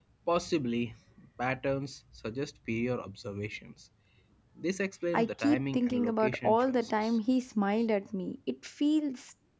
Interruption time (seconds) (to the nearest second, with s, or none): 5 s